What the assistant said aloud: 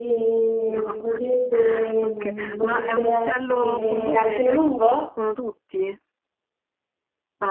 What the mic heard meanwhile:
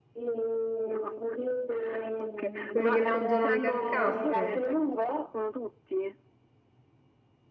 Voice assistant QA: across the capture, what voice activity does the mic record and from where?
both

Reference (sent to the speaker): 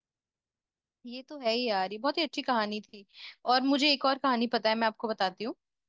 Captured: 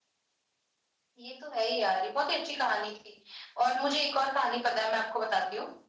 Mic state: echo only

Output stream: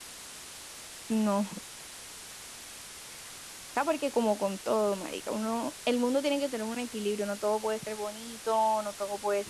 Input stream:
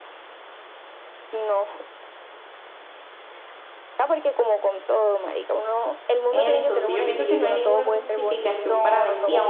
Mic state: both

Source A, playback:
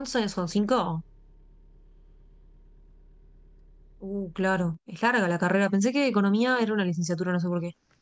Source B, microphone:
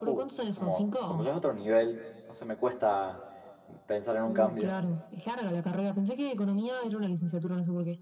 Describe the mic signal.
both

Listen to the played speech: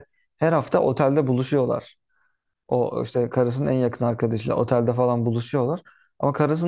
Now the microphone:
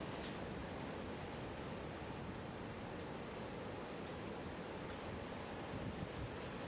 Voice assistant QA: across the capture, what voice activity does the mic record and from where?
neither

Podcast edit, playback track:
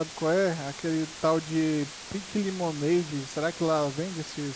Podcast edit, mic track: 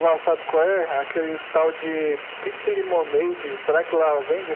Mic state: echo only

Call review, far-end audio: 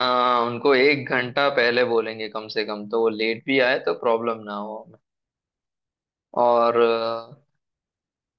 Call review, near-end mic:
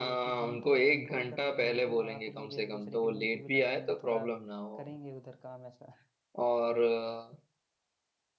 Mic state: both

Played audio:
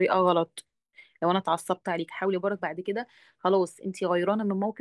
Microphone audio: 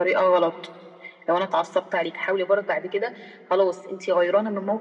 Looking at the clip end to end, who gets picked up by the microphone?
echo only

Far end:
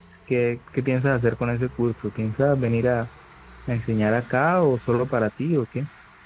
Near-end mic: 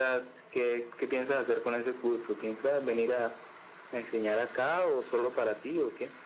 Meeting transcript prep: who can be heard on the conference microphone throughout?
echo only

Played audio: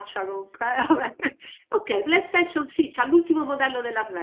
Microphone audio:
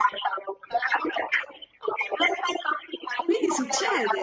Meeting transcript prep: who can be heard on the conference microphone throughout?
both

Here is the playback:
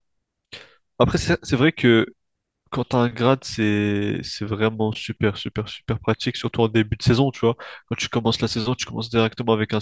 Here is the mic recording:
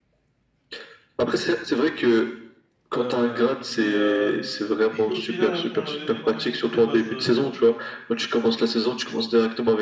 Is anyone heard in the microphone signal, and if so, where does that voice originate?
both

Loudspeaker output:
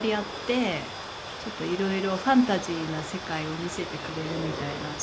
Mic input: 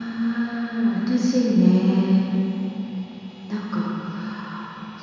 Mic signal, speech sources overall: user only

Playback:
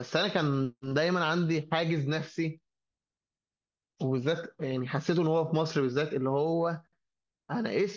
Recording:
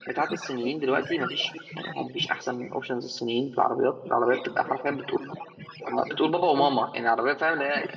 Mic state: both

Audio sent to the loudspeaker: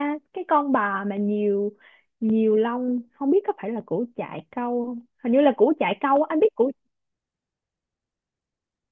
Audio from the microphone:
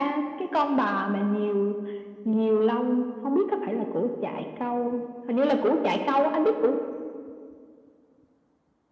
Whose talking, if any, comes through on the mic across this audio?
echo only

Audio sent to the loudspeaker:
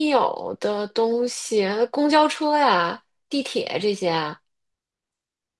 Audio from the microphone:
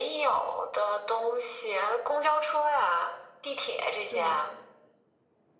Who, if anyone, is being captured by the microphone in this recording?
both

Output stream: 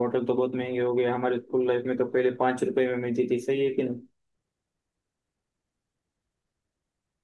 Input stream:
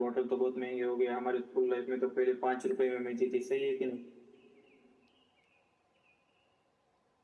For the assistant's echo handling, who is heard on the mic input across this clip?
echo only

